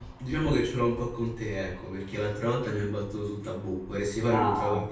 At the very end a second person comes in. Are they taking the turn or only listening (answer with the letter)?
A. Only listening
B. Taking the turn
B